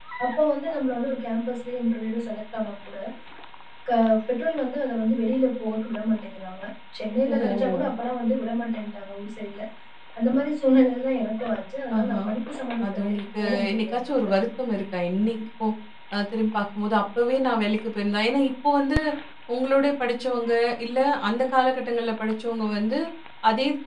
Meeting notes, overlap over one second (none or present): present